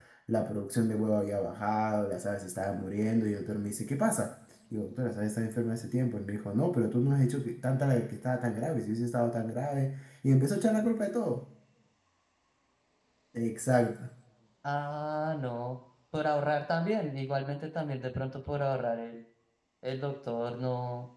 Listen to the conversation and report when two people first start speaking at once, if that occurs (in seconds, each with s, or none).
none